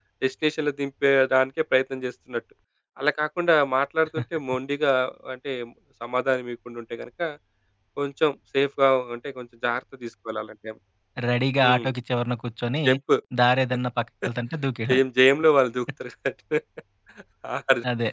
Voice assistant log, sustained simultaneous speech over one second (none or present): none